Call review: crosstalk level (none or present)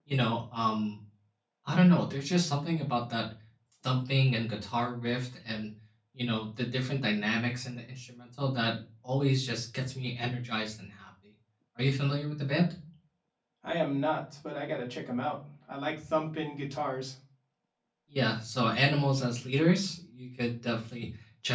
none